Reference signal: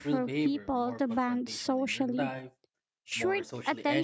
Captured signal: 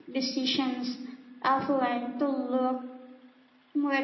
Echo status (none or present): none